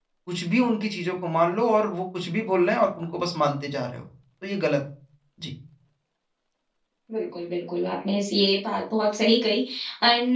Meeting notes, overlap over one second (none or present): none